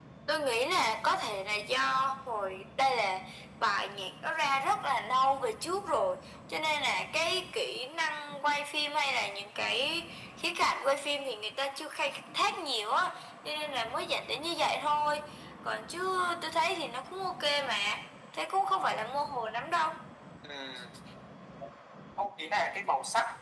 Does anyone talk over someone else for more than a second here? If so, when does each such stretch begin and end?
none

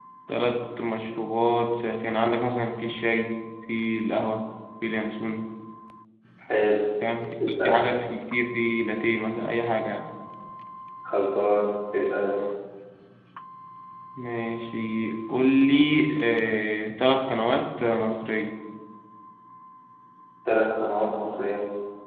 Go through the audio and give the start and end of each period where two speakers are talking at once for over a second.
none

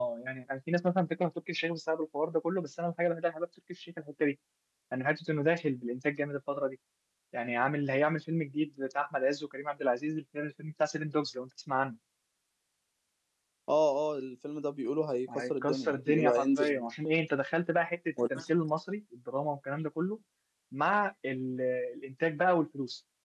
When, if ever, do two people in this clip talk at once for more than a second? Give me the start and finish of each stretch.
15.3-16.9

